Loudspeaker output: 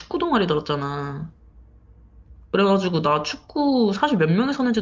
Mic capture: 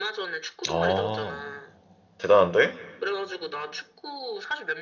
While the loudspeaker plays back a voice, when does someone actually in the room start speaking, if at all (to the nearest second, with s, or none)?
1 s